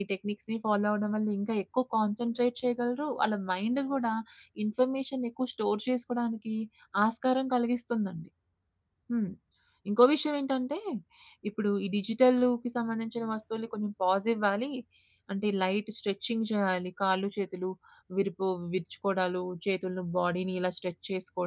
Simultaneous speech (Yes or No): No